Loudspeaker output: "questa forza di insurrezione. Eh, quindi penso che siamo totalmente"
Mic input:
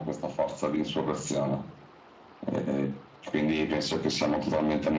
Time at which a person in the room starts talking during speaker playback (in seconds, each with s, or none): none